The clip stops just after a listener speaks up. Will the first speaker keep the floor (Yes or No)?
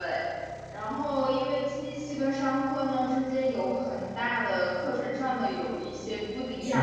Yes